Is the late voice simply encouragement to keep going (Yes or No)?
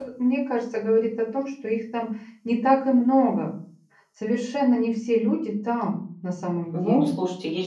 No